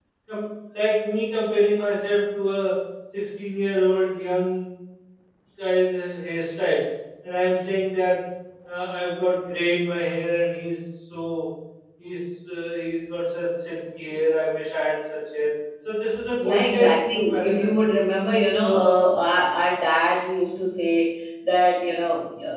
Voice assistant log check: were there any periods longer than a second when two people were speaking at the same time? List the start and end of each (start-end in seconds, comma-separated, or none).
16.4-17.8